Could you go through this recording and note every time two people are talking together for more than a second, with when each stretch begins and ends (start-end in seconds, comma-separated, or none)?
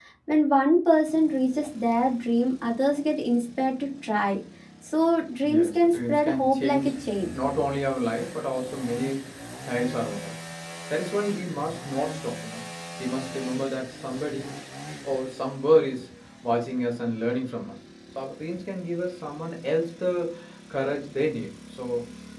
5.4-6.9